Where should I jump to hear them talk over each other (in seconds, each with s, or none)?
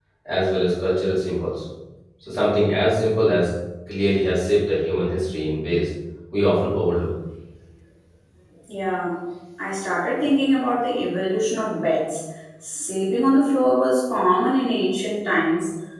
none